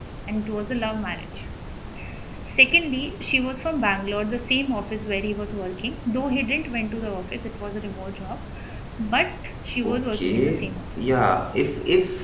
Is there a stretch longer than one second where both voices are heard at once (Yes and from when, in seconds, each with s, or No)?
Yes, from 9.8 s